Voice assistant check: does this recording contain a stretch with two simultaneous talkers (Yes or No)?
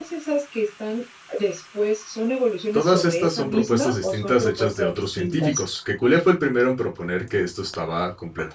Yes